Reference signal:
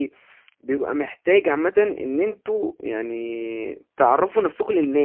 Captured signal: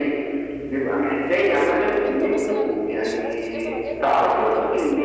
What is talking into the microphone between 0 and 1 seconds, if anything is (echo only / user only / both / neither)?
echo only